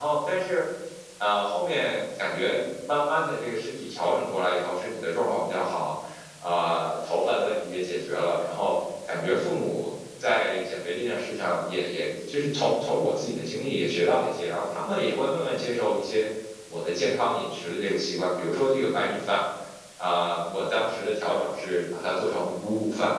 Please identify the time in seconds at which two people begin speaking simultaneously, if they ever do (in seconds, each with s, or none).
none